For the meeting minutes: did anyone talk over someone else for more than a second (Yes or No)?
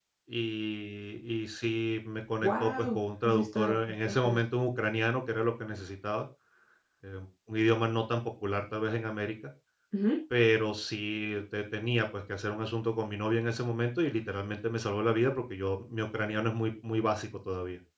Yes